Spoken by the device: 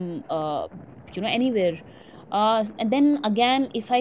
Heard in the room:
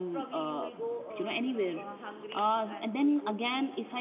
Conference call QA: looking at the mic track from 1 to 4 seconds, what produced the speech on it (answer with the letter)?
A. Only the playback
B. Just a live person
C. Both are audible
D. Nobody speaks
C